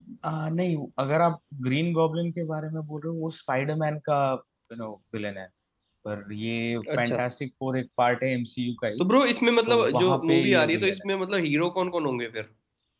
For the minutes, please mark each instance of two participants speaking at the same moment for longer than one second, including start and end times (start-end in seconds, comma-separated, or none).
9.7-11.0